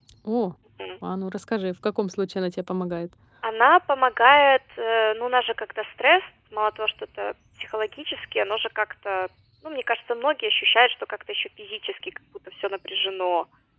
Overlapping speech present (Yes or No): No